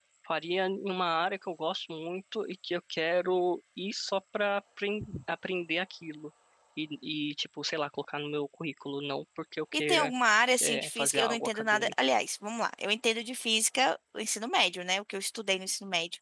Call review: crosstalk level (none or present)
present